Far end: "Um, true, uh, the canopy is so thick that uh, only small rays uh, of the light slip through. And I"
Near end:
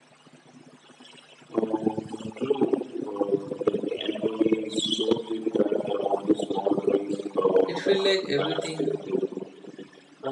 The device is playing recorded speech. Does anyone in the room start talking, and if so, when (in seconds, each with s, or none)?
7.6 s